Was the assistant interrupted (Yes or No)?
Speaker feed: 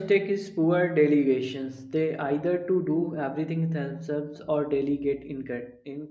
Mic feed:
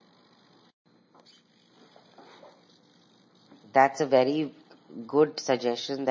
Yes